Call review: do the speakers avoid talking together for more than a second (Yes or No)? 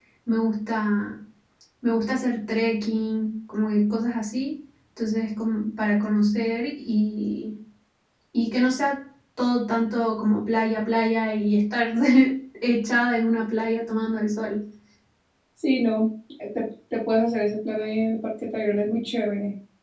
Yes